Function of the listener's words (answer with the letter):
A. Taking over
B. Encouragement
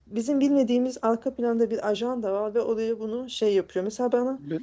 B